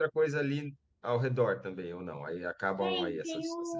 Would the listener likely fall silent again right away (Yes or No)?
No